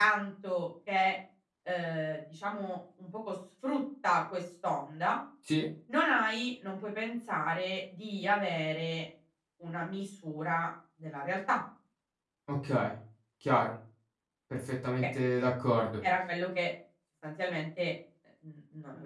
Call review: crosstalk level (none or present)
none